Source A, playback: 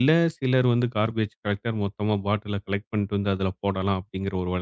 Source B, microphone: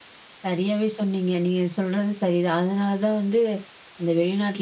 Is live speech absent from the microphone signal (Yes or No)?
No